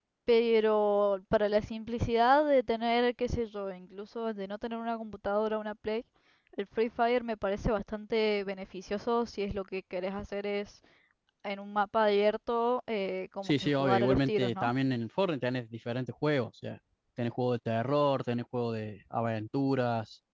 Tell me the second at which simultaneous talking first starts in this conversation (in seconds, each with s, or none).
13.4 s